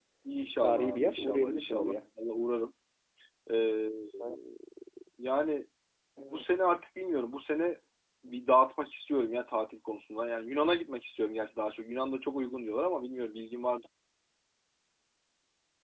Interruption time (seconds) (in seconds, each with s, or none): 0.6 s